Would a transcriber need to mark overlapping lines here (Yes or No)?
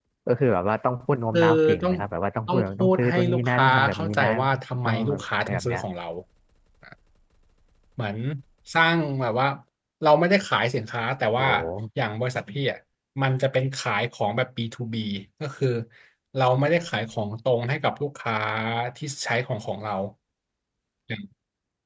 Yes